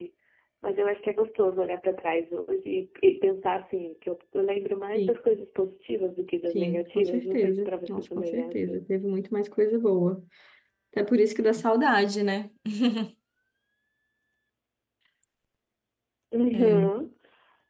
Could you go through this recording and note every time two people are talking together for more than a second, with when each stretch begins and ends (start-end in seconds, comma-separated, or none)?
6.5-8.8